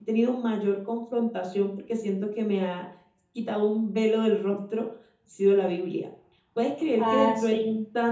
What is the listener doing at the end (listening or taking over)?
listening